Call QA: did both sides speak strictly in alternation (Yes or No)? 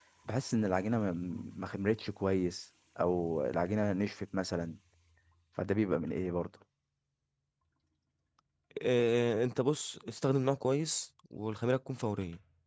Yes